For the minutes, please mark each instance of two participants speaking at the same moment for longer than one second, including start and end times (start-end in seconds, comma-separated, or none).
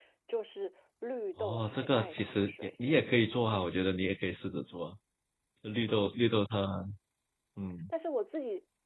1.4-2.7